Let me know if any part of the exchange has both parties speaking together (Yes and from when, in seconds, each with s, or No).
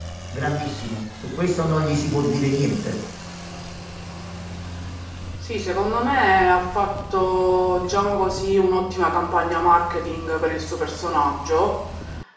No